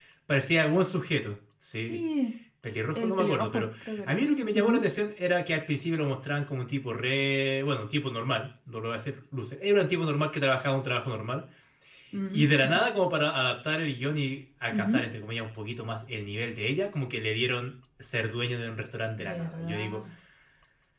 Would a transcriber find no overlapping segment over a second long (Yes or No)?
No